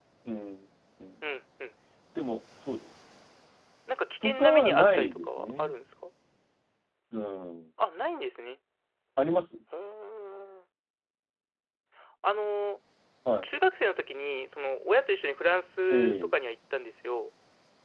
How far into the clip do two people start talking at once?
4.2 s

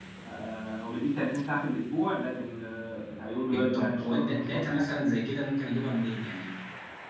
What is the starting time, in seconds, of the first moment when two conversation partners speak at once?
3.5 s

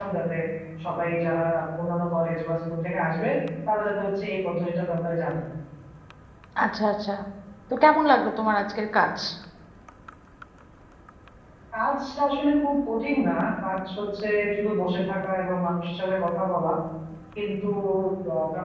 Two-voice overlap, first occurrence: none

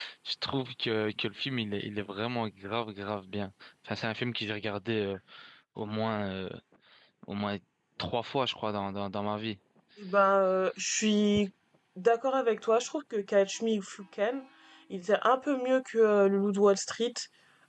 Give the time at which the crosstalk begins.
none

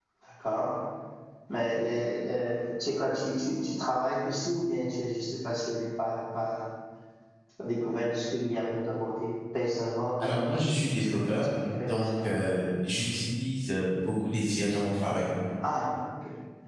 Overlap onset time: 10.2 s

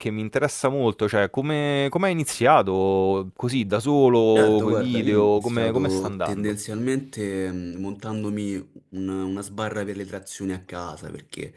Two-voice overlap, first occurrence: 4.4 s

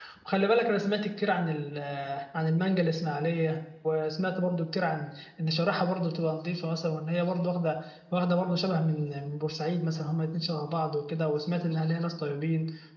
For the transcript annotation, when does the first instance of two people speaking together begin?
none

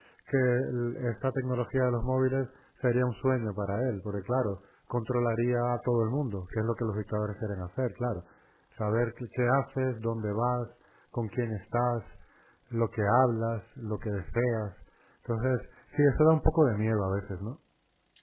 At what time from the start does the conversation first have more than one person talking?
none

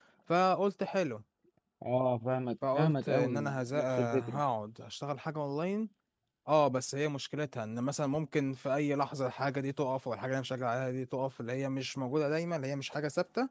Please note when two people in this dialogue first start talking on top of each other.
2.6 s

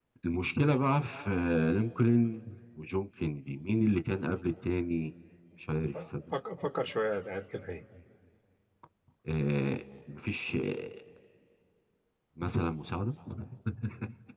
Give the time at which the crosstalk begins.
none

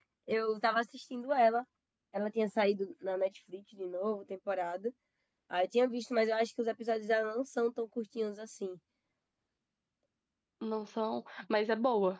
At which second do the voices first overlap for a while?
none

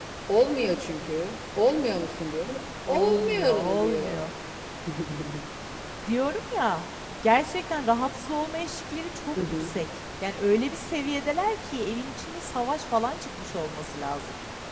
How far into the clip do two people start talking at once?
2.9 s

